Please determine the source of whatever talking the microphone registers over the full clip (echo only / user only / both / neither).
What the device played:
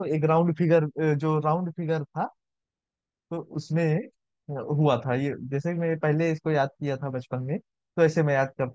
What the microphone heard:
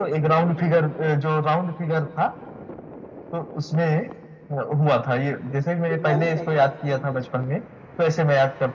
both